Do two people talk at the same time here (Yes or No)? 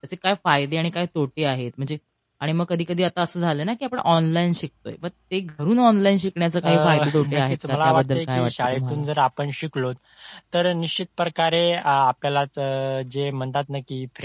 Yes